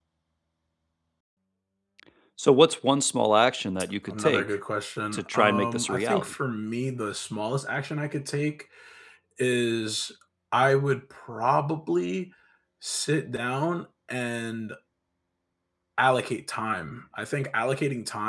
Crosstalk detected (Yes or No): Yes